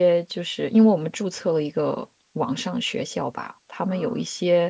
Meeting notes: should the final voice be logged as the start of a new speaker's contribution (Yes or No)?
No